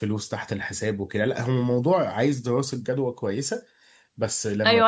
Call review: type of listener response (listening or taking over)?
taking over